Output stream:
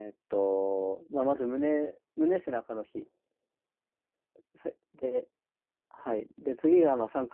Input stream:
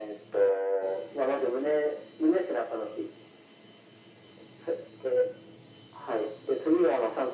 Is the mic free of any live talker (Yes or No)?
Yes